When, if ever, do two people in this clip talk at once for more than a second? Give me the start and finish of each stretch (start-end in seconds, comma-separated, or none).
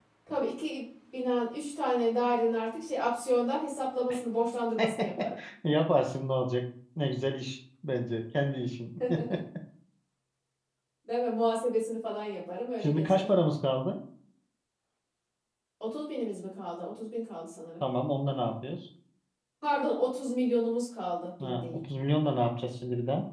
none